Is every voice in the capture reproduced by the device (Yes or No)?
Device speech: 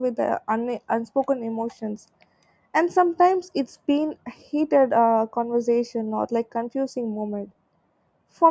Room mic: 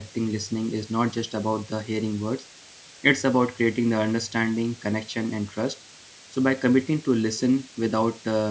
No